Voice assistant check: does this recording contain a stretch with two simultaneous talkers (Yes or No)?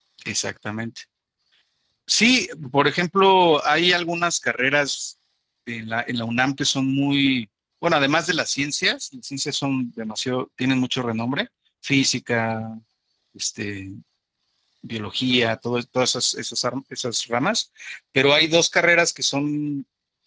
No